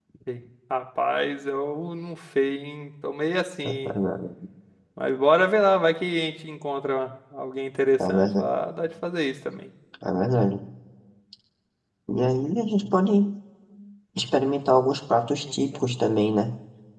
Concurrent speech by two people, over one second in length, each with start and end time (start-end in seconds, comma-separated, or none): none